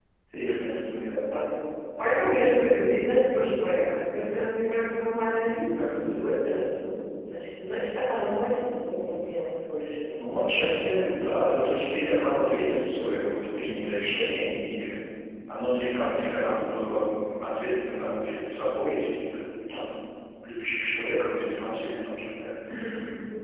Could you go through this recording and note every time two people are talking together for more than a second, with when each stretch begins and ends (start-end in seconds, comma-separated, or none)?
none